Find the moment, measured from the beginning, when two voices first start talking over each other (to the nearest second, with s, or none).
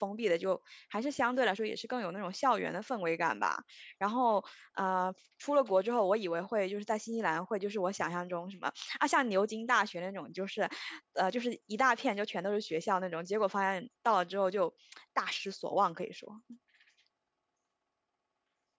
none